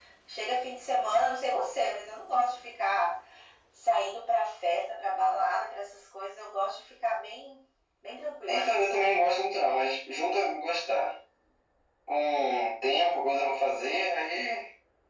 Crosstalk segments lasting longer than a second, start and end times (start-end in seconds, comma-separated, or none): none